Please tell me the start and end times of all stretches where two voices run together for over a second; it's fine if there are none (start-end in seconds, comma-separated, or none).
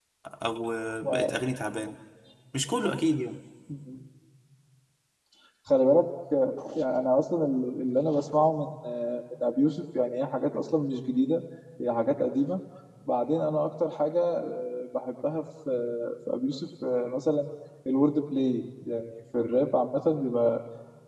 none